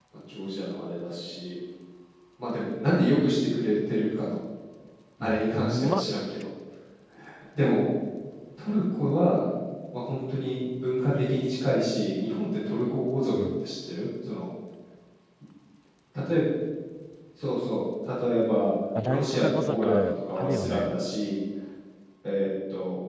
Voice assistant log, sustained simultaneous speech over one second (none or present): present